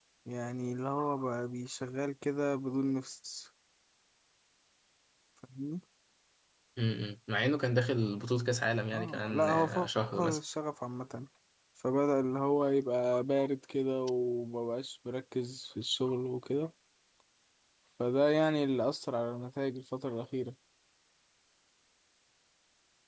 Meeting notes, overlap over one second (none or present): present